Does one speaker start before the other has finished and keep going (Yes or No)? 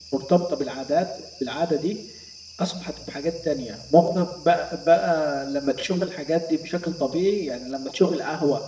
No